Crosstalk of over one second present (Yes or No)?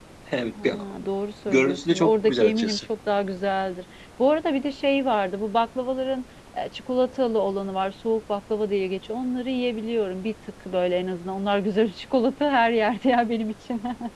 Yes